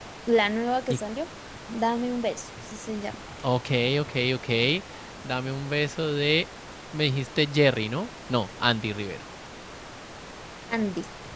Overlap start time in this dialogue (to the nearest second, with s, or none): none